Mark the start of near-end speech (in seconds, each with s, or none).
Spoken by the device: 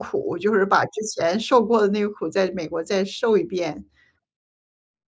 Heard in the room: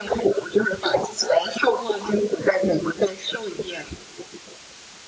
none